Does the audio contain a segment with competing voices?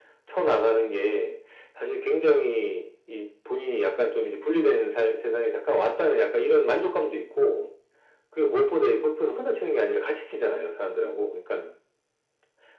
No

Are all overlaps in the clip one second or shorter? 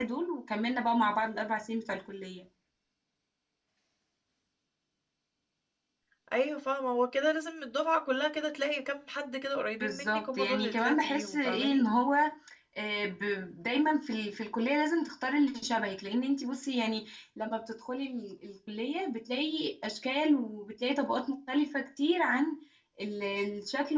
No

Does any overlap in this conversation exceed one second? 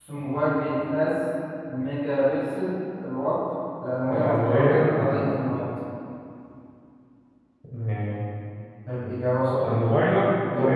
Yes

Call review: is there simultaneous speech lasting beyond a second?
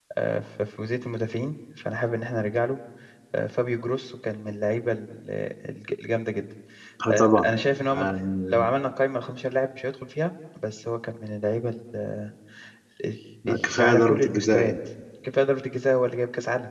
Yes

